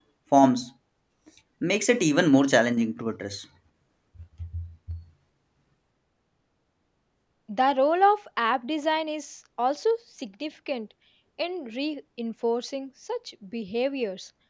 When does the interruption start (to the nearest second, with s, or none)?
none